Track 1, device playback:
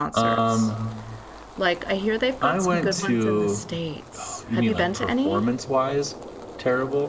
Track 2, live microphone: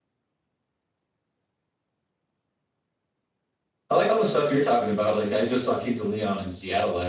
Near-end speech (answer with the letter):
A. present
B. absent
A